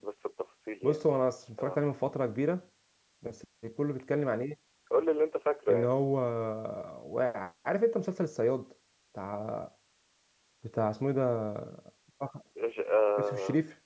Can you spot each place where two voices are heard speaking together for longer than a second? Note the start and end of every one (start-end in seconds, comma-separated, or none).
none